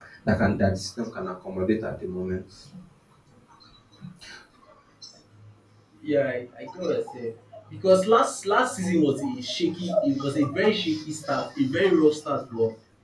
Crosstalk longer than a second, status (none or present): none